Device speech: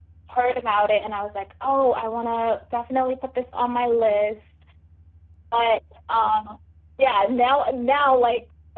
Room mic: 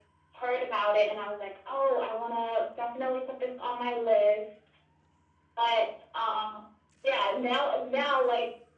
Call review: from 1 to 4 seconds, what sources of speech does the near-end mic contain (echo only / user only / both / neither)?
echo only